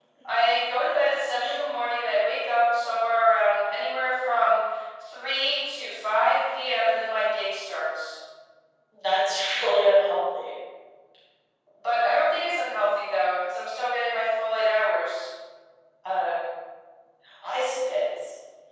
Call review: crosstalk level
none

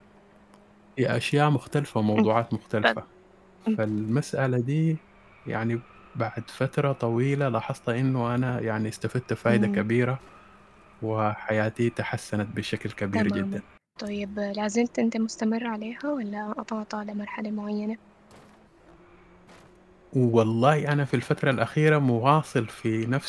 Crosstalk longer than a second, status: none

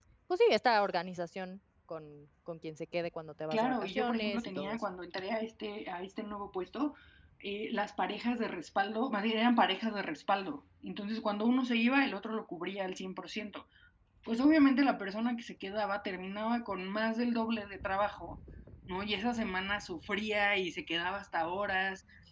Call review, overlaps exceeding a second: present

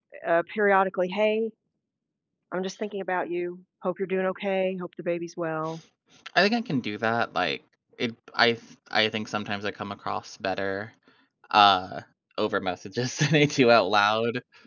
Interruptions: none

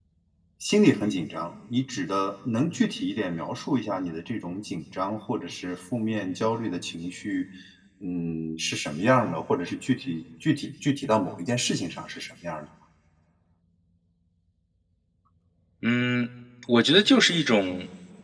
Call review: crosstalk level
none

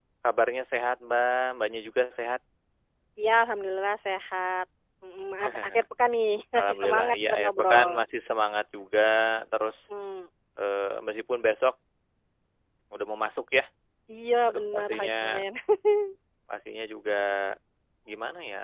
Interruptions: present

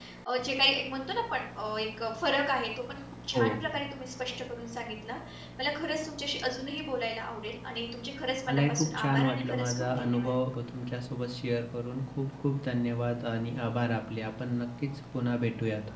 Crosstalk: present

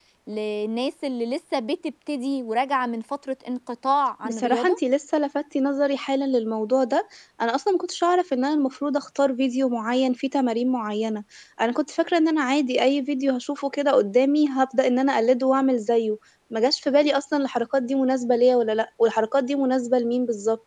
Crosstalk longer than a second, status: none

